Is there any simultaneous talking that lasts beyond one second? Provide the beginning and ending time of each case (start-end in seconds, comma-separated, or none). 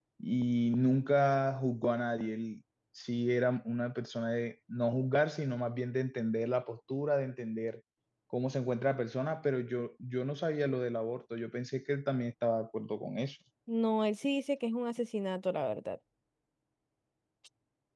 none